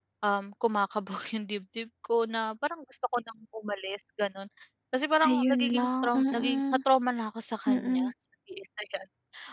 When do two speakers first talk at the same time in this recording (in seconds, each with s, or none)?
5.2 s